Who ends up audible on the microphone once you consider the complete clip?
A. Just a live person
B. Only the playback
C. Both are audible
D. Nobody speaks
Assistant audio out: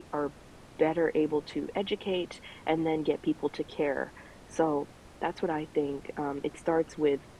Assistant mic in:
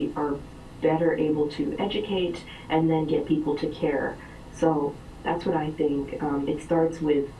B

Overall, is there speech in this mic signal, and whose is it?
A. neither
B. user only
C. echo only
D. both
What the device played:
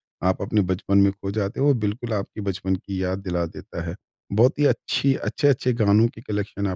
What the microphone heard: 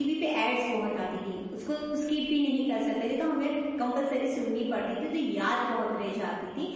B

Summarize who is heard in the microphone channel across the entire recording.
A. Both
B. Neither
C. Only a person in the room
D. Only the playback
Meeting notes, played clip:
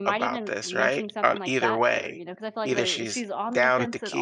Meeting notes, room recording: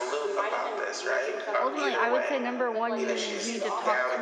A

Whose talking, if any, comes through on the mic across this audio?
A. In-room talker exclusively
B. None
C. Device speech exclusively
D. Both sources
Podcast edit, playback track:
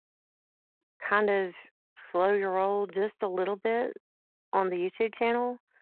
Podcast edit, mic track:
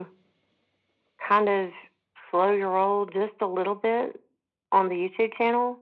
C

